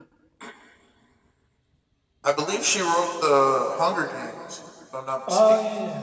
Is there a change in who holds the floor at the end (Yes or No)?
Yes